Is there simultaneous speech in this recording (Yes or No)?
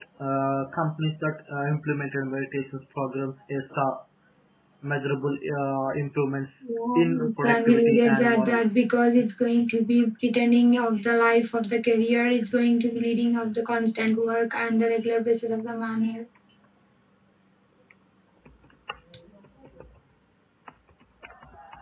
Yes